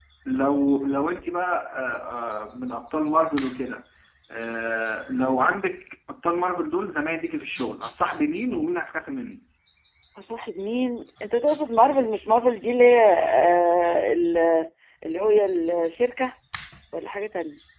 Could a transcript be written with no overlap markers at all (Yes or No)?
Yes